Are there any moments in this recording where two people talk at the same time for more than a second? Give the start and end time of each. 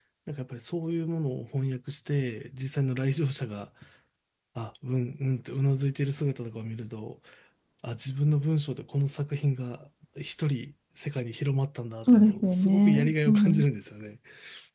12.1-13.6

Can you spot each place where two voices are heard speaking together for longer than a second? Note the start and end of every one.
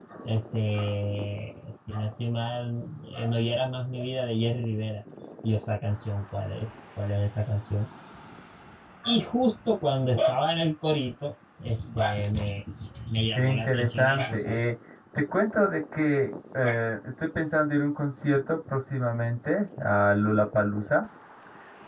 13.4-14.6

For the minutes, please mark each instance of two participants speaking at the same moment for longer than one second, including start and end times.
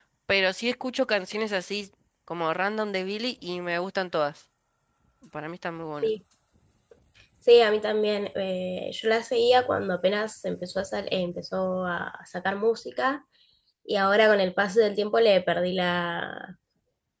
none

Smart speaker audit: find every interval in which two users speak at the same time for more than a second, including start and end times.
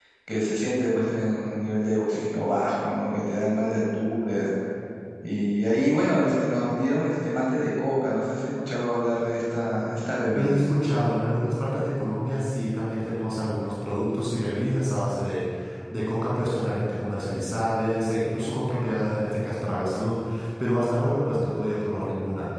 none

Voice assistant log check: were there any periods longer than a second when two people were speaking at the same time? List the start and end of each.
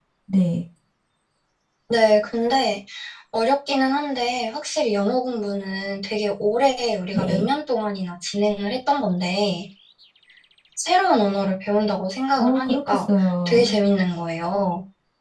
12.4-13.8

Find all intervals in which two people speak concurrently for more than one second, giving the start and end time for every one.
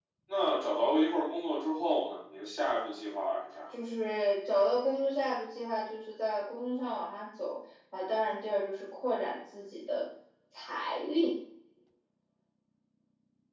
none

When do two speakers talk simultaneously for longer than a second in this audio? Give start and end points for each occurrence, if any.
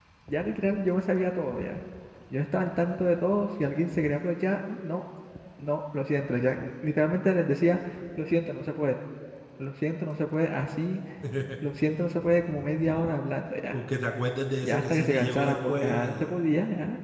14.6-16.3

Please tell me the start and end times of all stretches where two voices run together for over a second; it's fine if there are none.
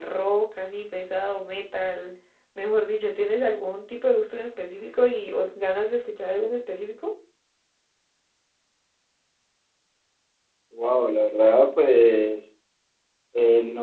none

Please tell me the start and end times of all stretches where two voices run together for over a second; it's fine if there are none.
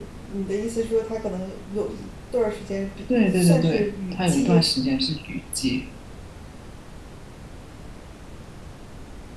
3.3-4.6

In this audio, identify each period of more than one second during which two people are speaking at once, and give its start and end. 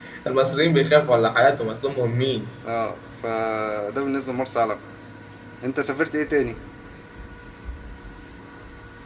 none

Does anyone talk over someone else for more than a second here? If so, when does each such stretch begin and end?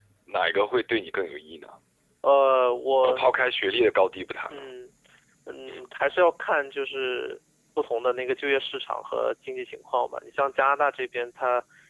none

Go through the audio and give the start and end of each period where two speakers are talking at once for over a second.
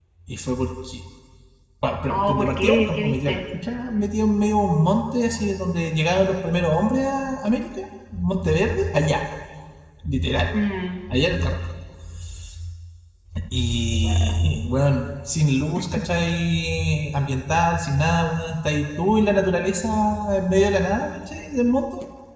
2.1-3.4

